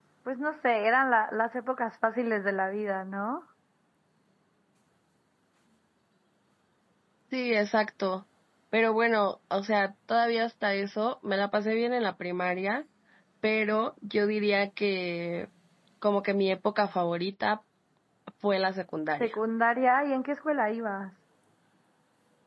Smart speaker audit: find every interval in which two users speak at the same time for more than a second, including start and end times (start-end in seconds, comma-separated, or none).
none